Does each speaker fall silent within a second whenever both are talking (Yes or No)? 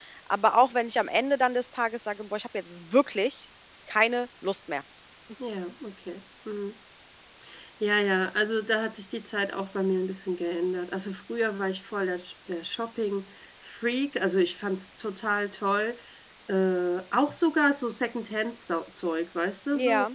Yes